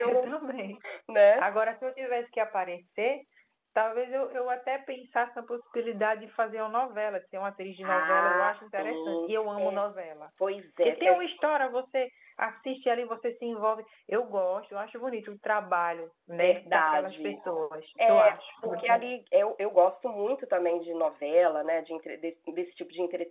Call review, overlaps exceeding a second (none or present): present